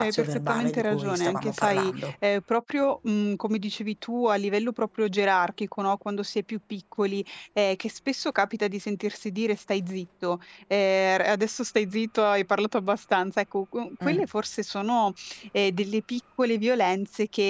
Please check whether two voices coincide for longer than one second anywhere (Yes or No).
Yes